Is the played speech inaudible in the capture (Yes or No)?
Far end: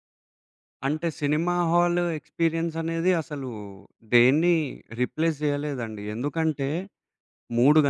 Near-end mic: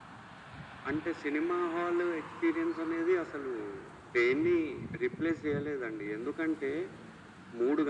No